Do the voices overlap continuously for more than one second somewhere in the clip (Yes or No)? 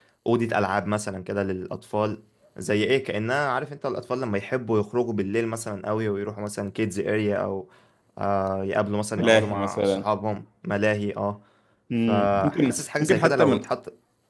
Yes